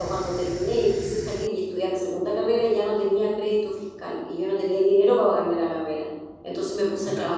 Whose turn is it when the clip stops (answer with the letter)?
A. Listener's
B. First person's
B